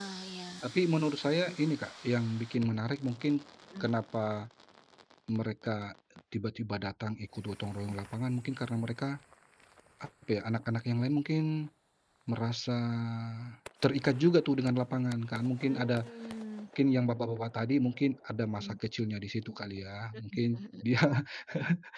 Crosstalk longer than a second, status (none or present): none